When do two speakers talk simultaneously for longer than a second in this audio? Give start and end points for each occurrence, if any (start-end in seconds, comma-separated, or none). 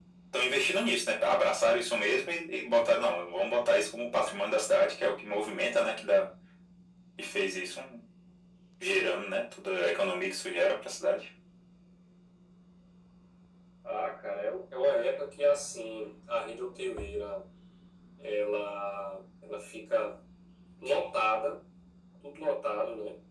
none